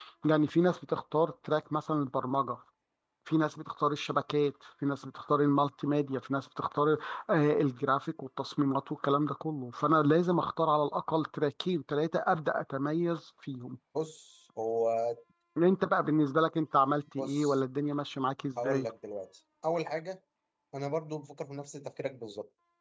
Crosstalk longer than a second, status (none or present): none